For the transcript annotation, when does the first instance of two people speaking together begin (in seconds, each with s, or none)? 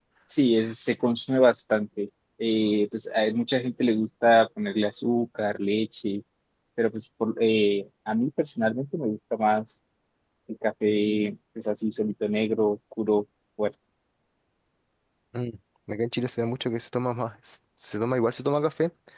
none